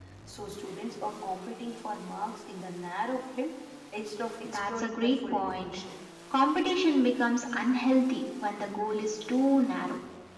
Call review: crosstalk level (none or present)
present